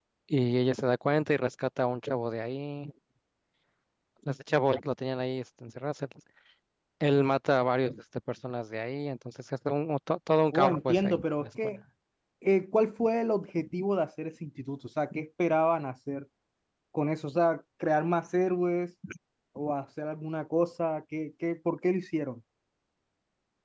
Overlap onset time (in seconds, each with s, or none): 10.5 s